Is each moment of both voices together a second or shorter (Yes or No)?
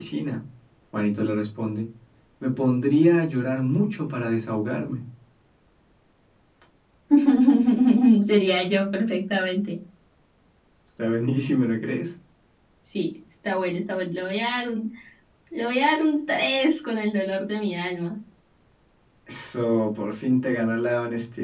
Yes